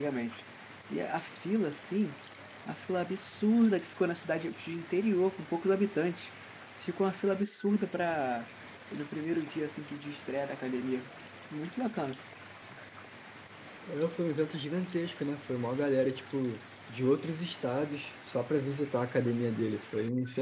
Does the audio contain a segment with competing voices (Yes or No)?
No